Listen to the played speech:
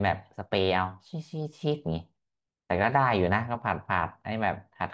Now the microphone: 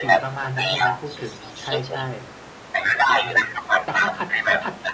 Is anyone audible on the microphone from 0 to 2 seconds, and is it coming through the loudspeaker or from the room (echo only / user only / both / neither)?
both